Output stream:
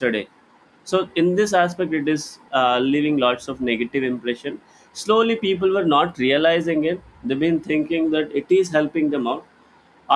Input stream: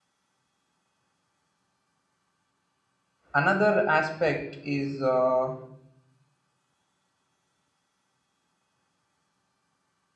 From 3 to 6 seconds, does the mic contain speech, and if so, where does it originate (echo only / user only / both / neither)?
user only